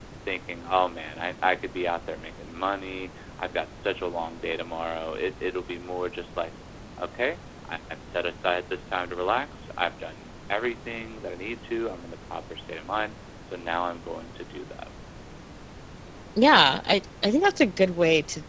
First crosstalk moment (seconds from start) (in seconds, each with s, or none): none